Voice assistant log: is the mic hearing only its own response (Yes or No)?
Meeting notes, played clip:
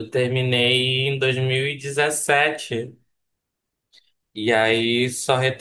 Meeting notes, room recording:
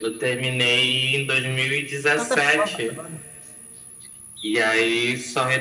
No